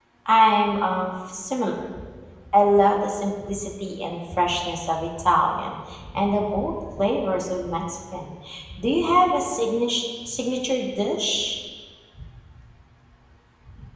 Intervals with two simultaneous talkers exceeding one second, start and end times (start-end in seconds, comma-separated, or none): none